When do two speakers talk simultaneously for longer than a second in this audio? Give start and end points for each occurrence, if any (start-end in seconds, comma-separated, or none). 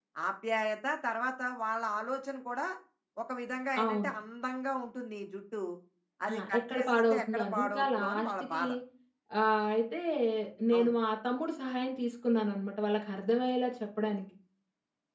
6.3-8.6